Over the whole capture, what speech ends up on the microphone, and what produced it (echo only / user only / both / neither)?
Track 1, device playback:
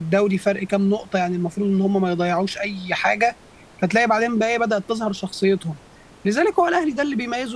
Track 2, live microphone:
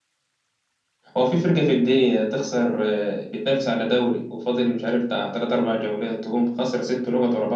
user only